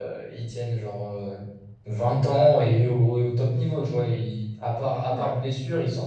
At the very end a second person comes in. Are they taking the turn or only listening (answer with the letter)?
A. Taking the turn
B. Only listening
B